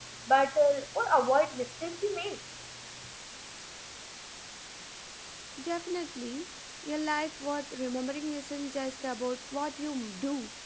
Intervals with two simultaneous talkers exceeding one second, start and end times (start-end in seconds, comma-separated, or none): none